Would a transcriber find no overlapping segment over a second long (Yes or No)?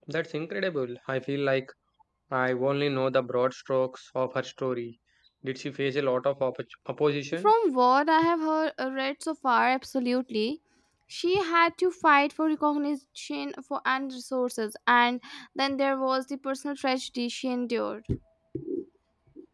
Yes